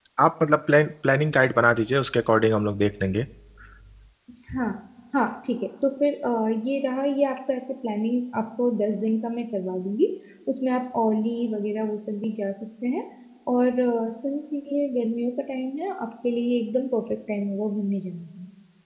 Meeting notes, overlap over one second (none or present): none